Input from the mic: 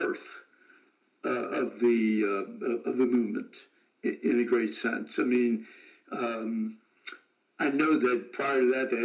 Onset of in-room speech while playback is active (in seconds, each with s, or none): none